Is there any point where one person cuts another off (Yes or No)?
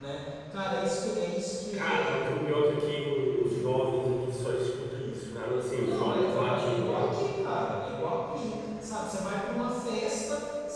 Yes